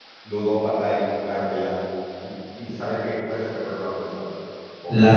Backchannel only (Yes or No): No